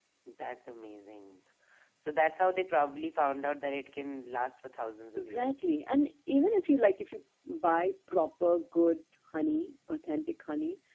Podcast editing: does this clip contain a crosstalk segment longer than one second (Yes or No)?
No